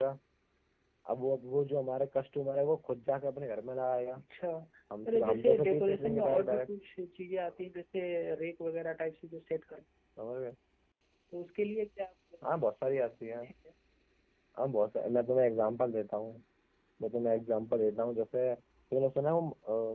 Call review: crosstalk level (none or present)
present